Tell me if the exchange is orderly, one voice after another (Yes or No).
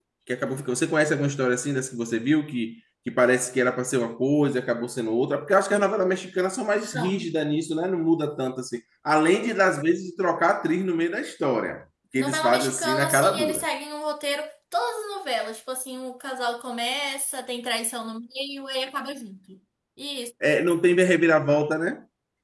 No